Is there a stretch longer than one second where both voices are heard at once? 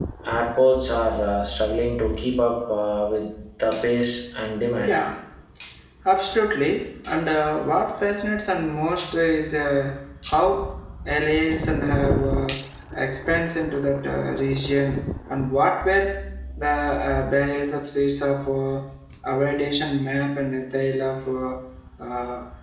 No

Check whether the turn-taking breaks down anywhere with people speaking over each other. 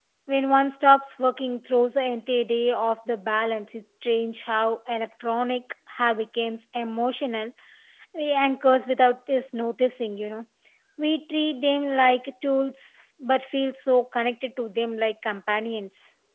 No

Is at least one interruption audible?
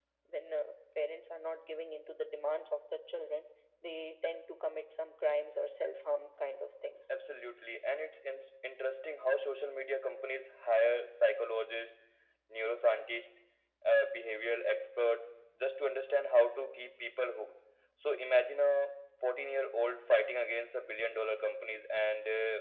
No

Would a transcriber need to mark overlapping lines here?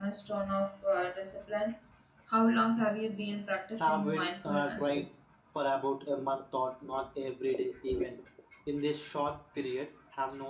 Yes, from 3.8 s

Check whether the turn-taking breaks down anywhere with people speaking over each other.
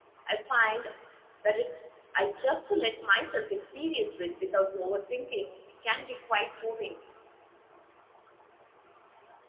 No

